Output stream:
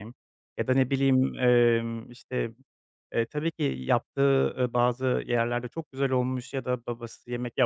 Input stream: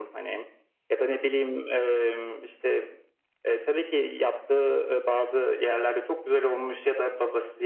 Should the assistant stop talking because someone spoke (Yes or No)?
No